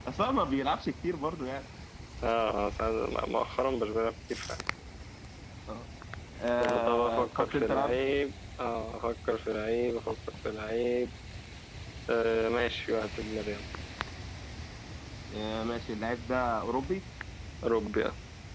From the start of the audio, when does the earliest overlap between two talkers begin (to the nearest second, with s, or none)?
7 s